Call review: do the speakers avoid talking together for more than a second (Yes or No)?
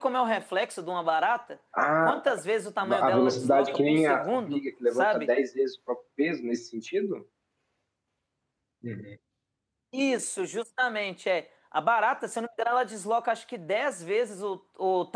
No